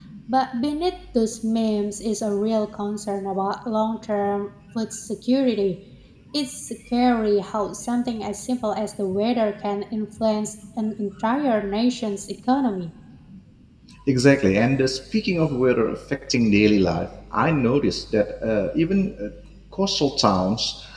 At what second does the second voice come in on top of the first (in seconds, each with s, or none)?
none